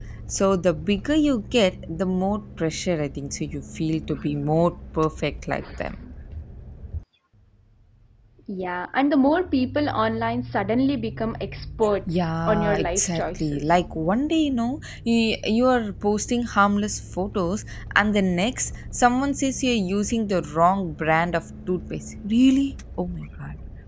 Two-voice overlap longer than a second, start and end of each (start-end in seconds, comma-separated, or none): 12.1-13.8